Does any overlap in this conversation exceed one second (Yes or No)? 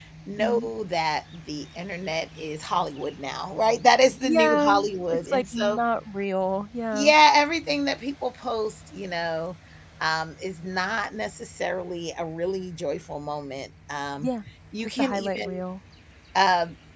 Yes